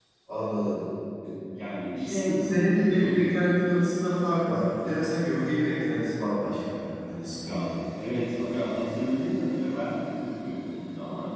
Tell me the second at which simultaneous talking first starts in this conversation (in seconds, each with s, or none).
2.0 s